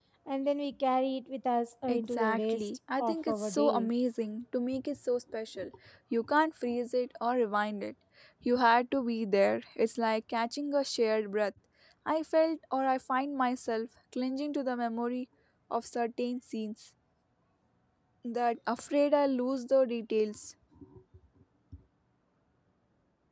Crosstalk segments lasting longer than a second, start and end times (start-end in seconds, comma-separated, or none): 1.9-3.9